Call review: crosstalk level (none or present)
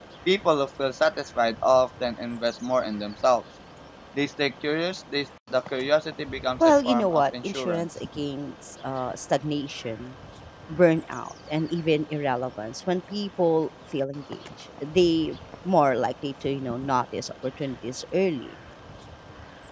present